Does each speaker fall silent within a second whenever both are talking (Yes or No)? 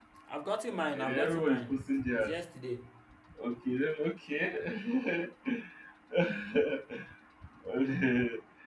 No